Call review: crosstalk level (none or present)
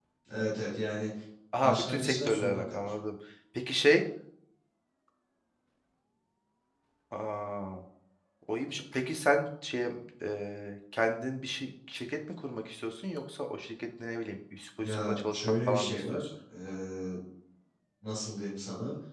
present